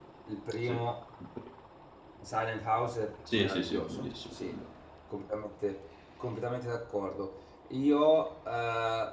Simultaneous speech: Yes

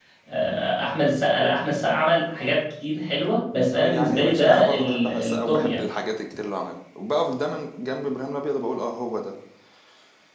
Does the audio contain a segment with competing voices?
Yes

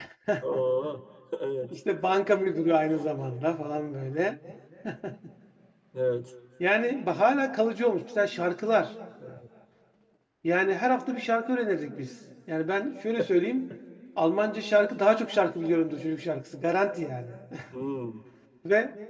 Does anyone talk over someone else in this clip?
No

